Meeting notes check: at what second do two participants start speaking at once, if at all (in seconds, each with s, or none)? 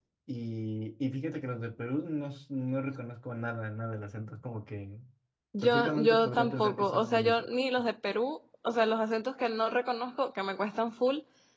5.6 s